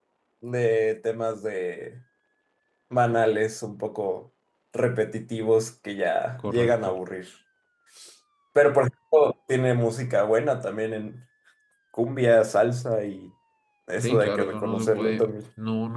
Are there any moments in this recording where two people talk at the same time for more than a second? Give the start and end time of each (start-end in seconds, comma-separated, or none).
14.0-15.3